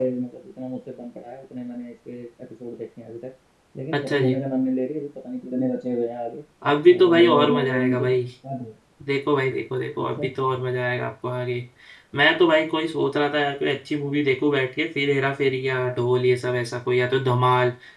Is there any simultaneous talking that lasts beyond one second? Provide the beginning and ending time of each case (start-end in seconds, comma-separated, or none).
6.9-8.2